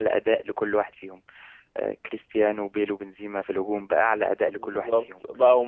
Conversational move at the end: taking over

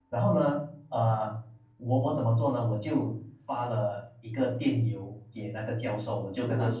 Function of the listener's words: listening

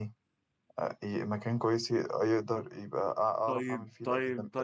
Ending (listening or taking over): taking over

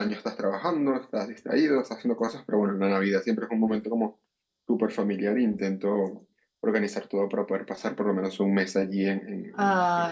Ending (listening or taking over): taking over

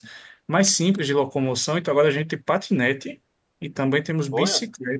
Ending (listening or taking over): listening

